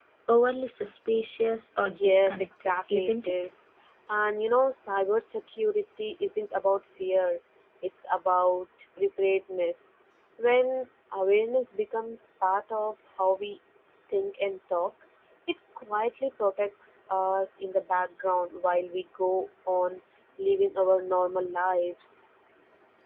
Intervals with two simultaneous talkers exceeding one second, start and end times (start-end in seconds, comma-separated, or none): 2.0-3.3